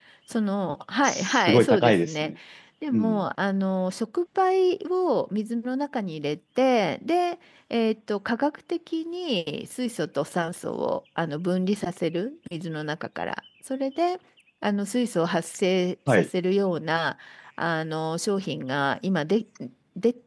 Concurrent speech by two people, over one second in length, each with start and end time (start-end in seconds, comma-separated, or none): 1.0-2.3